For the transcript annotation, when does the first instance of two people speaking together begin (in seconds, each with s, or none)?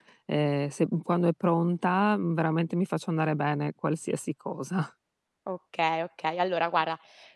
none